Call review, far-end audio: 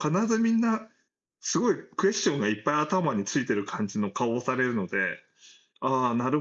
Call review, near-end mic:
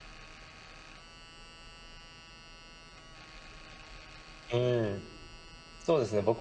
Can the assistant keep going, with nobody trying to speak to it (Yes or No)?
No